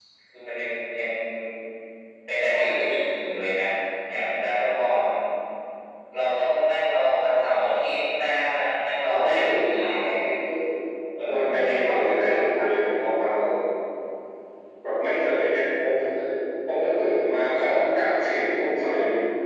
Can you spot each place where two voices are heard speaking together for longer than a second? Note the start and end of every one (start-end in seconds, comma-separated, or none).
9.0-10.3, 11.3-12.6